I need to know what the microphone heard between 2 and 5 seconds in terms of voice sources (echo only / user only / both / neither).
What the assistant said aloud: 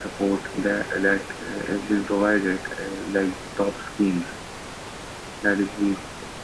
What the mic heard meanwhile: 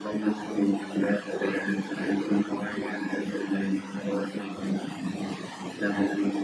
echo only